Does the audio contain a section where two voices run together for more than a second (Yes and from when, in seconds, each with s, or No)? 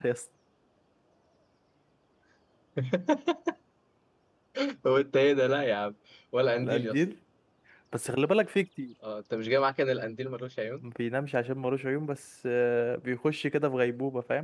No